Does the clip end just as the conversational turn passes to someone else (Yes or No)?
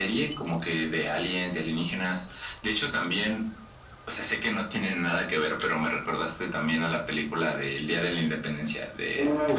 Yes